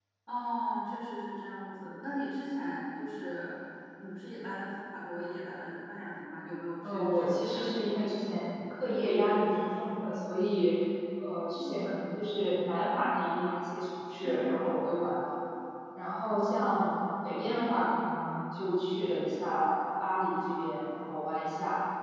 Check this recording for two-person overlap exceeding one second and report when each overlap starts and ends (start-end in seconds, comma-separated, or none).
6.9-8.1